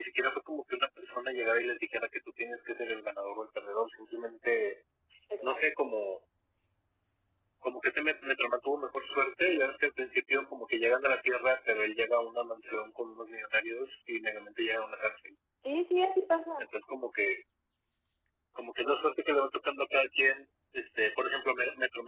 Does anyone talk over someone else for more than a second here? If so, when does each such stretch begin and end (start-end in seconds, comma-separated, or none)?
none